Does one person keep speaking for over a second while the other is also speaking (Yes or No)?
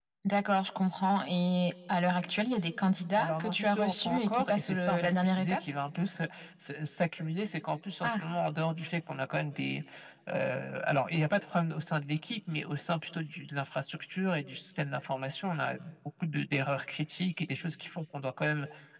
Yes